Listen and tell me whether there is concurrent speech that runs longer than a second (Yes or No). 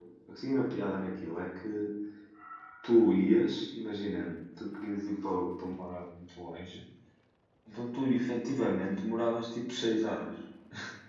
No